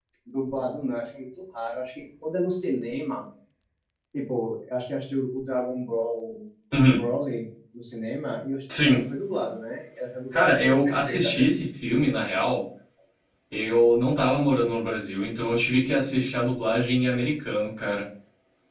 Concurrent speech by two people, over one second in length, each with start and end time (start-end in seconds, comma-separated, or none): 10.3-11.5